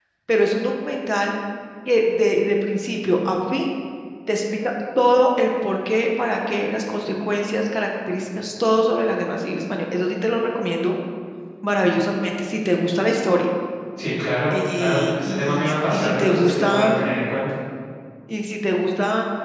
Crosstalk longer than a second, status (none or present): present